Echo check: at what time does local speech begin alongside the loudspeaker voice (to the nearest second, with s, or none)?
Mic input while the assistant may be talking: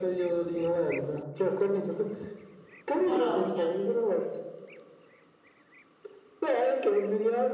3 s